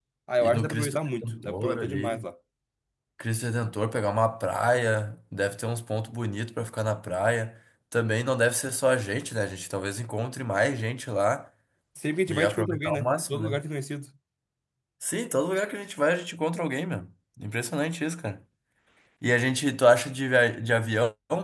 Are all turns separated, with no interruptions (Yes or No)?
No